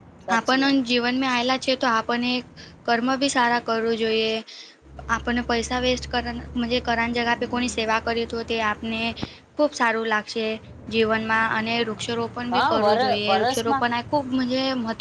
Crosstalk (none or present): present